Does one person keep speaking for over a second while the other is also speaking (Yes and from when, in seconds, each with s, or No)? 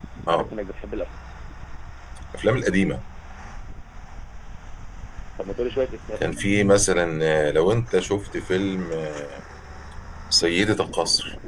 No